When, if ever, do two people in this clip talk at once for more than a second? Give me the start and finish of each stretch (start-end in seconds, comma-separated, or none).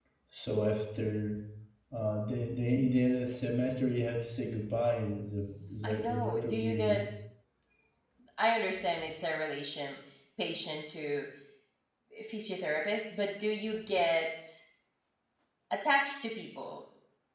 5.8-7.0